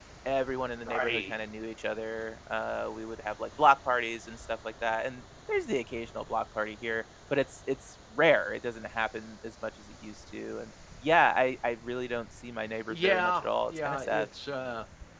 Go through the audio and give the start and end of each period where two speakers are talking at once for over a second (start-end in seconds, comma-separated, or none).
12.9-14.3